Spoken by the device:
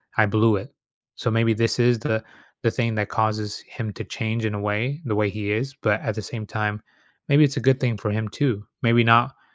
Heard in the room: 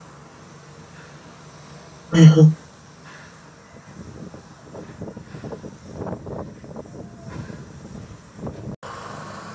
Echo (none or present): none